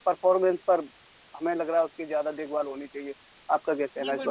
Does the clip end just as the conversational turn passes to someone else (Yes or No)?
Yes